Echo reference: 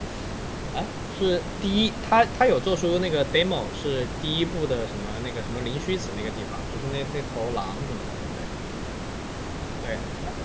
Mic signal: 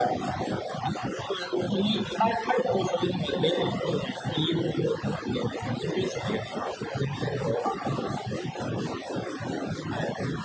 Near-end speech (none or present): none